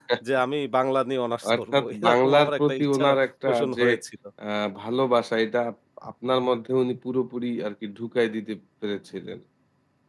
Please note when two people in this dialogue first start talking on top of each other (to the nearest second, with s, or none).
2 s